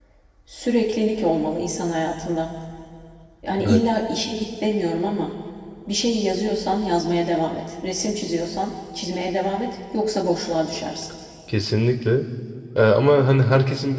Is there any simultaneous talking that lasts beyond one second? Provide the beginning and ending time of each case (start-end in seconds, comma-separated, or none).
none